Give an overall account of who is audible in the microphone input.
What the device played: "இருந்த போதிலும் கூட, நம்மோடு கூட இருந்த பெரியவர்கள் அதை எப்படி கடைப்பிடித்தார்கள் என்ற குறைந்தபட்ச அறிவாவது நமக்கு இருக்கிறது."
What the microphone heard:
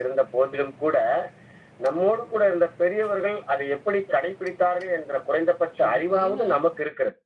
both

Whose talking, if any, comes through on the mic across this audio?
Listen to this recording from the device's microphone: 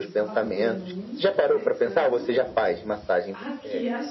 both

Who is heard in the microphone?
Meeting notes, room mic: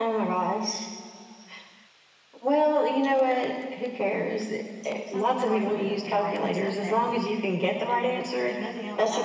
both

